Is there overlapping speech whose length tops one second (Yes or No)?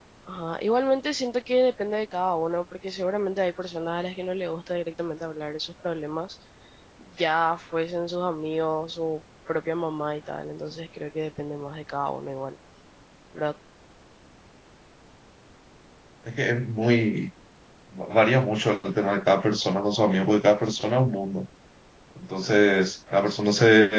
No